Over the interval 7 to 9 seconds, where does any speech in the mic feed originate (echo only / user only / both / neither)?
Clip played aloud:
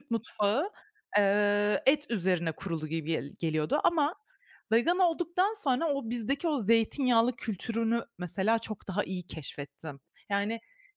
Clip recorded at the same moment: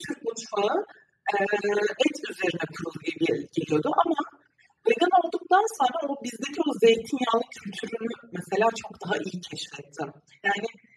echo only